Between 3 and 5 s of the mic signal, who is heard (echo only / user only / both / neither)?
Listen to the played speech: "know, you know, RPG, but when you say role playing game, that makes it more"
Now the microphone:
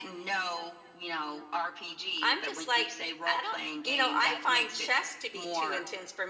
both